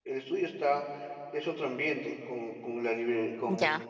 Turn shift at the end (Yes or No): Yes